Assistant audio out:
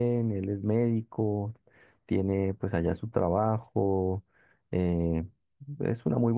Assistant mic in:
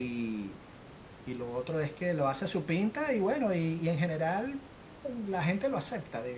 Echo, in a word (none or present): none